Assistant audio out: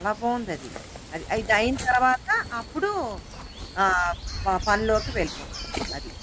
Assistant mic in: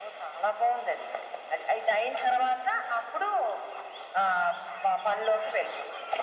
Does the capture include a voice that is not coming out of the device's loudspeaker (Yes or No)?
No